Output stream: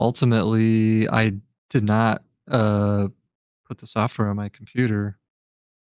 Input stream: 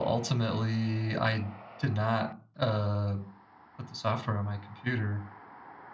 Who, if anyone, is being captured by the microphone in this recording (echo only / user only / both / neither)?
echo only